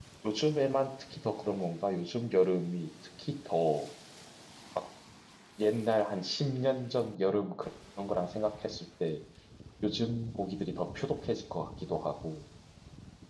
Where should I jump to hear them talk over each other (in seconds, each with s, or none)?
none